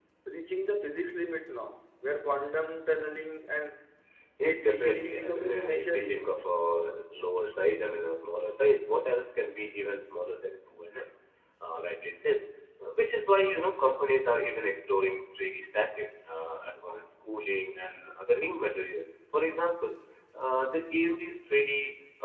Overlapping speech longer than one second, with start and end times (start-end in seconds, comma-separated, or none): 4.4-6.4